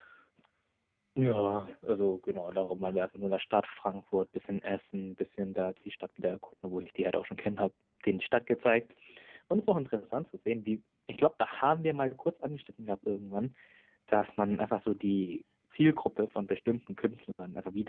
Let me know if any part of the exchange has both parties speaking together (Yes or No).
No